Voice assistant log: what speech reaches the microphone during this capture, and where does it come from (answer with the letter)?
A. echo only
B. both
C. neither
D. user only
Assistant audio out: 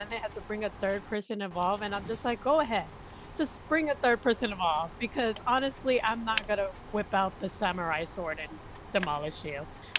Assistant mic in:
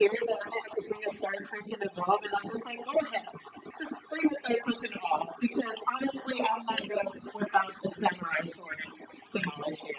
A